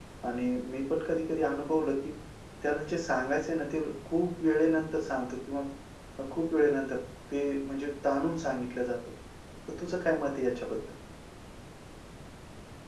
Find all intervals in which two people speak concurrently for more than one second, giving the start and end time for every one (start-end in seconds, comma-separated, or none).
none